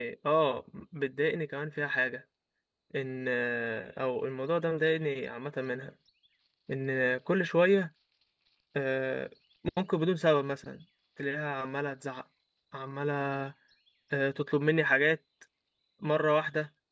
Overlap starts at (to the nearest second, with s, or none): none